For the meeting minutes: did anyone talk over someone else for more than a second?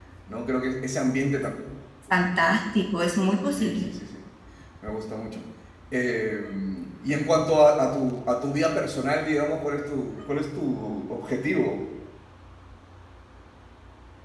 No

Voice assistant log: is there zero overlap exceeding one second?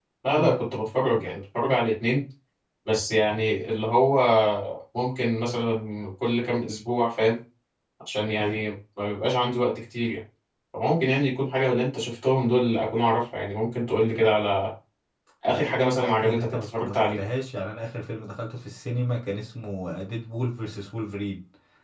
No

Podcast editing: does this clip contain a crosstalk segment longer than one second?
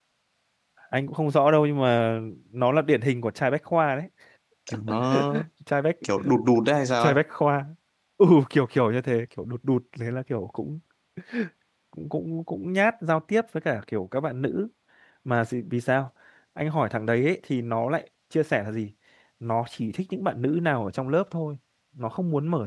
No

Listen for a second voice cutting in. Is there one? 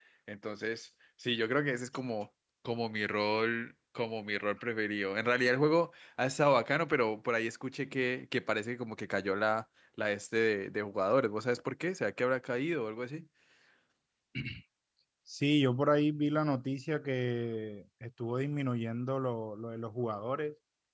No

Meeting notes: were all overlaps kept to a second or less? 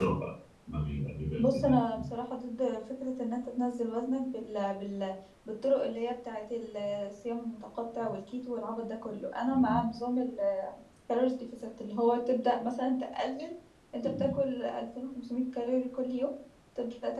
Yes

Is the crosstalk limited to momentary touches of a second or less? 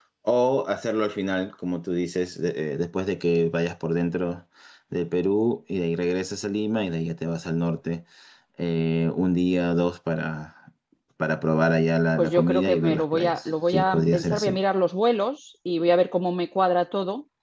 No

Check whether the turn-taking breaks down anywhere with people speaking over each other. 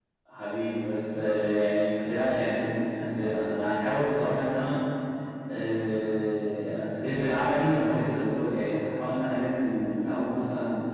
No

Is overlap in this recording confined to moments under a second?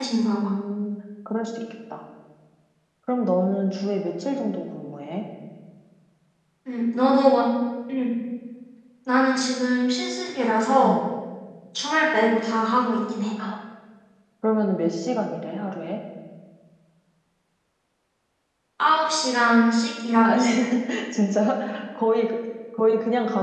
Yes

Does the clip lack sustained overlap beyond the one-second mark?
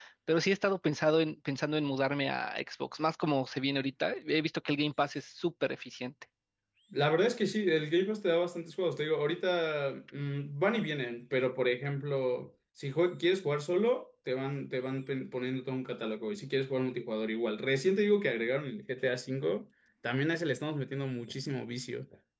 Yes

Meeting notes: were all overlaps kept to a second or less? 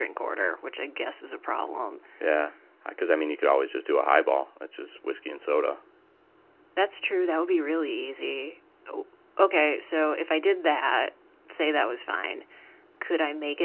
Yes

